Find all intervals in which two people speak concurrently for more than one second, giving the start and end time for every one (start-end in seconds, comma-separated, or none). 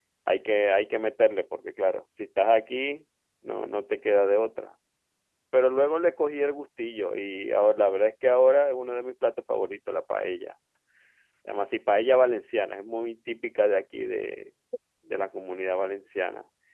none